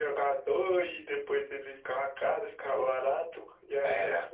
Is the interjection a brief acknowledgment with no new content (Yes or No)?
Yes